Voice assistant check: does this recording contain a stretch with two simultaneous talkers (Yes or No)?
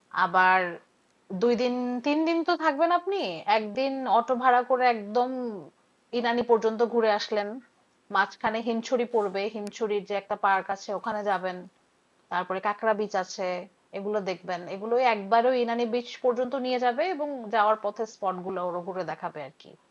No